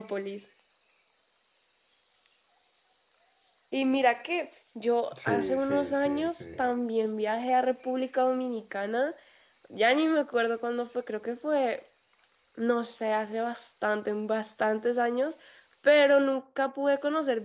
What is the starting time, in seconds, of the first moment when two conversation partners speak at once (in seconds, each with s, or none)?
5.1 s